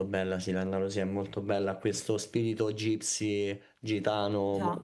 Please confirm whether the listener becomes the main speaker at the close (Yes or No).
No